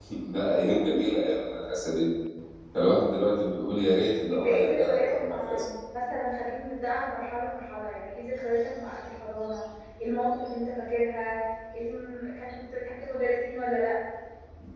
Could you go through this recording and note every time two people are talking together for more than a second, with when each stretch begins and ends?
4.3-5.6

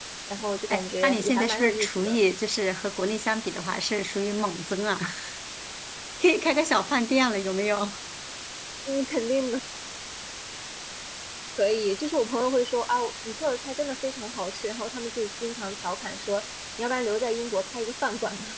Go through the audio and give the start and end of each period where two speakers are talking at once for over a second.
0.7-2.2

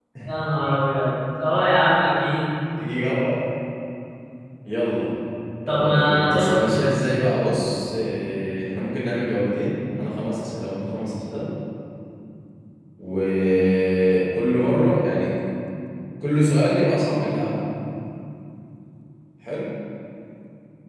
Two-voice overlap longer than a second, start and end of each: 5.7-6.9

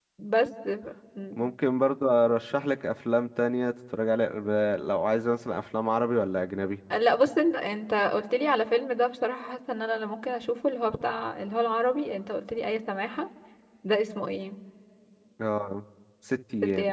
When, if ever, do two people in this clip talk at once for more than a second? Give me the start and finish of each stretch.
none

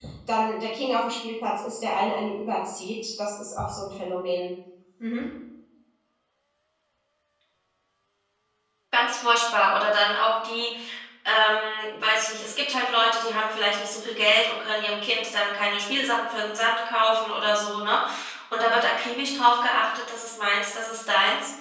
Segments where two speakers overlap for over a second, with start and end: none

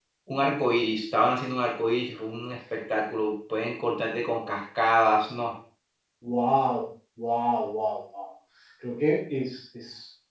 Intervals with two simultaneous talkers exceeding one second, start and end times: none

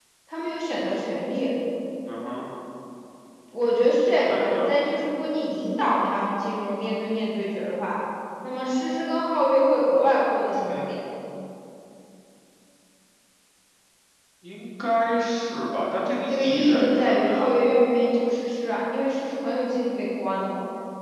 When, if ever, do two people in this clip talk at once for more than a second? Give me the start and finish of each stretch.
16.3-17.5

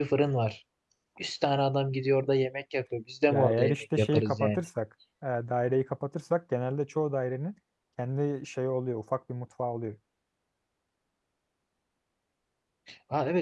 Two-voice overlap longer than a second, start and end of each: 3.3-4.6

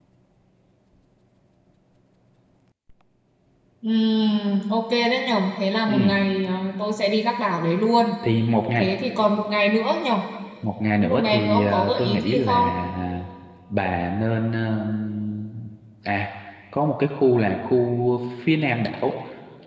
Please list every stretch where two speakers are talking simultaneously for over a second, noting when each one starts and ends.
11.0-12.5

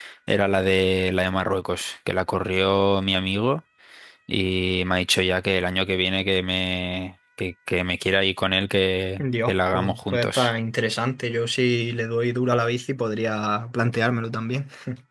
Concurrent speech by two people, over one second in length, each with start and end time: 9.2-10.5

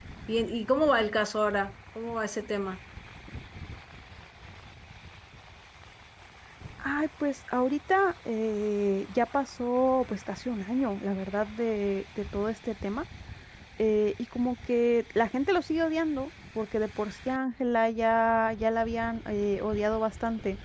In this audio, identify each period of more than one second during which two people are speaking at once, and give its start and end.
none

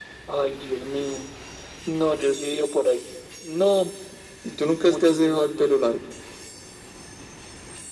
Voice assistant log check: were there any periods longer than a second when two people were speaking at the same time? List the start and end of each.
4.5-5.7

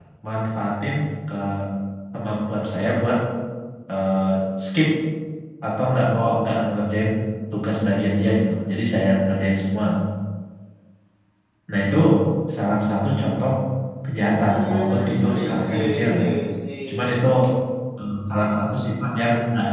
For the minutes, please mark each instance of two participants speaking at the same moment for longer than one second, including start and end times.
14.2-16.2

